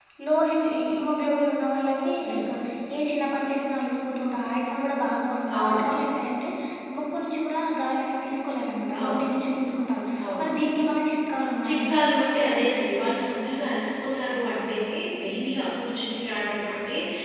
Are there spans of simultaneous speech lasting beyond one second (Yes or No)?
No